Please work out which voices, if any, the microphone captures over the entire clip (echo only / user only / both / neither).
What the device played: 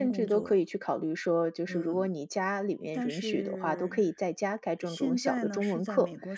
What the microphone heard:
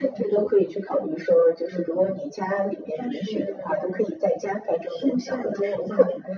echo only